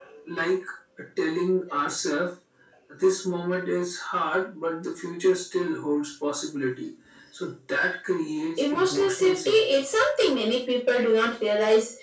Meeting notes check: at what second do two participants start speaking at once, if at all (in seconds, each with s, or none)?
8.6 s